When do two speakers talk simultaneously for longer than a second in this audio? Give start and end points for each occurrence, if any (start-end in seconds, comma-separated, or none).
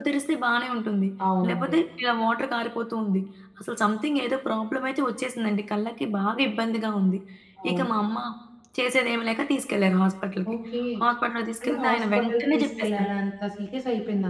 11.6-13.1